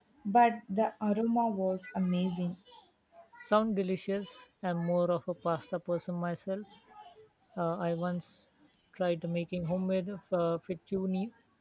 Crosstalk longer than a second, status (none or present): none